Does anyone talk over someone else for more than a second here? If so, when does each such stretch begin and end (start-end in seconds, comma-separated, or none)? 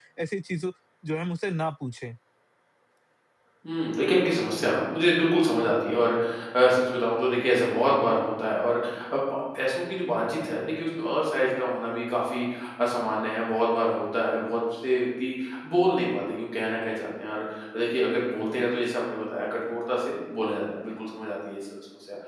none